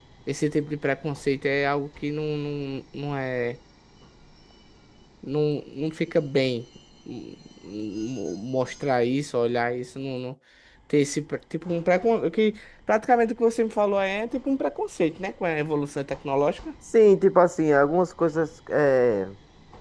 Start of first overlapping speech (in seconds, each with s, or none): none